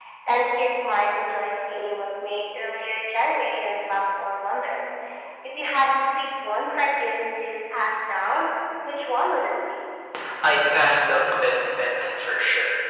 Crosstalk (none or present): none